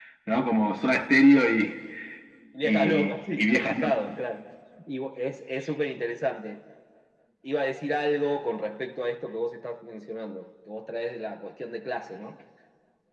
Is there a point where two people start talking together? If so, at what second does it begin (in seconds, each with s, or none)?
2.6 s